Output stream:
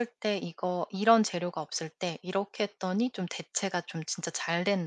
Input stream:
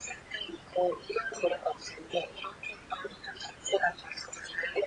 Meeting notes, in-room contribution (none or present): none